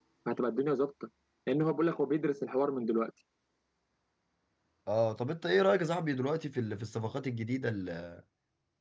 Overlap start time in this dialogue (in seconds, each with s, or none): none